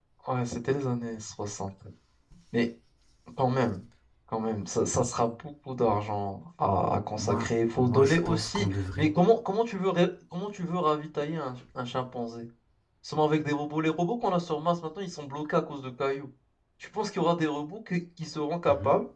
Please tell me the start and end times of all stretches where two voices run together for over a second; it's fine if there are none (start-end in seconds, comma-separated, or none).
7.2-9.1